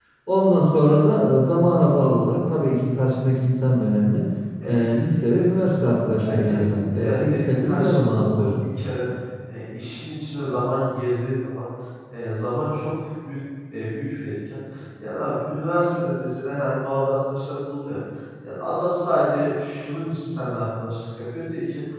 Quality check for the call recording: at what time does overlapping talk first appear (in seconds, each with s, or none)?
6.2 s